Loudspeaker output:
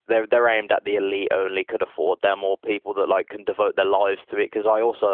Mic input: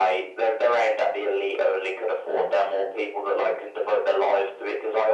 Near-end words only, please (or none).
none